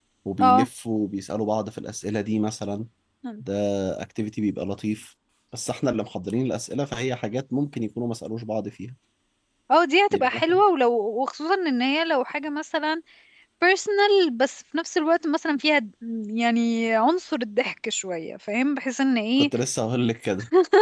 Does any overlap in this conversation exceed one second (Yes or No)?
No